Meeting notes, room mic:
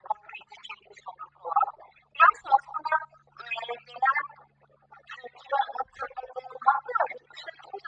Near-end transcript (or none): none